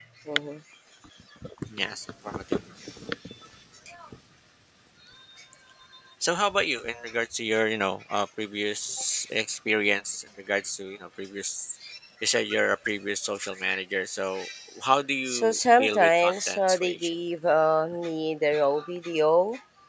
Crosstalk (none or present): present